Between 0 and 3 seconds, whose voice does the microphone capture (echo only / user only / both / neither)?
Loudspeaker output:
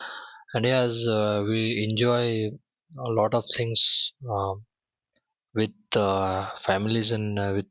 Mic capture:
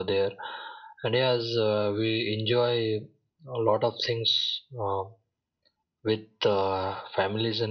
echo only